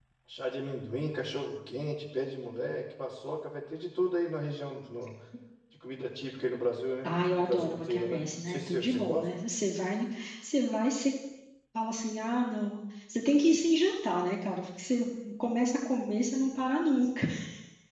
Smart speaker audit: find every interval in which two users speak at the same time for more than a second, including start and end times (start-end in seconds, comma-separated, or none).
7.0-9.2